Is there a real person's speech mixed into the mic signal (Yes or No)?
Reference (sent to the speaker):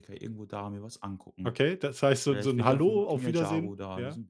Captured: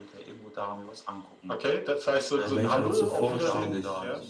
Yes